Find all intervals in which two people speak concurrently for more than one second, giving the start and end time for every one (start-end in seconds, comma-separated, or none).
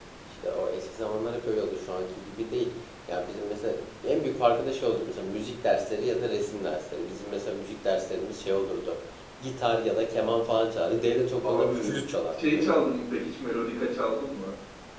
none